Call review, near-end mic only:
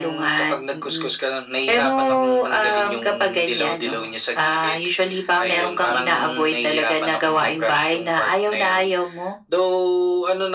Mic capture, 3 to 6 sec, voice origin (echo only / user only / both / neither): echo only